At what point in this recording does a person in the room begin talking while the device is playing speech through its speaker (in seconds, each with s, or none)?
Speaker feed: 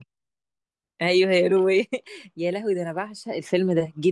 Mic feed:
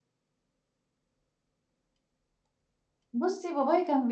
3.1 s